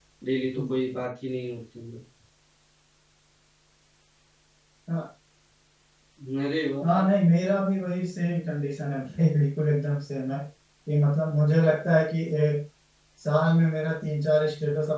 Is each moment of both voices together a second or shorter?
Yes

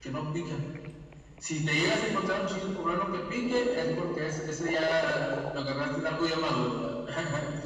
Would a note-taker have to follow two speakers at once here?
No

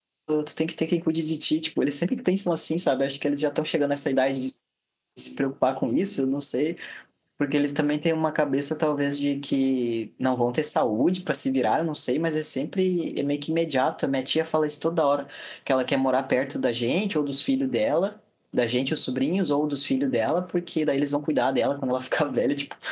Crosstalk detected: No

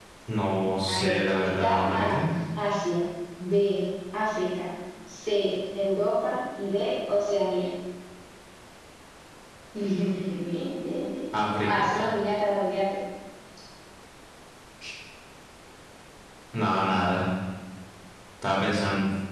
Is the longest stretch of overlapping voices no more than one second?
No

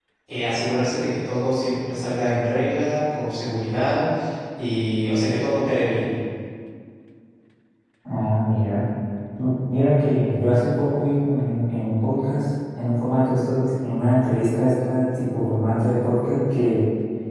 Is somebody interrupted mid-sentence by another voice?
No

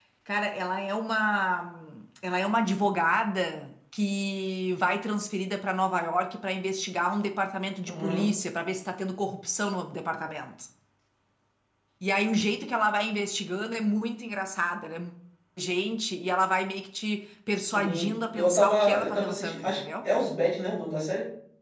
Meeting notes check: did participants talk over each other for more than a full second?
Yes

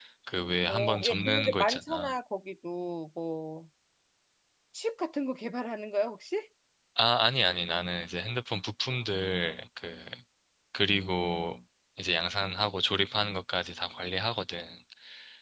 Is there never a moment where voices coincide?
No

